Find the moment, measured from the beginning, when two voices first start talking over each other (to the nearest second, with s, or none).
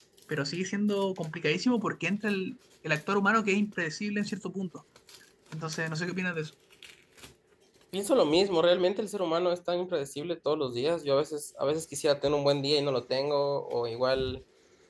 none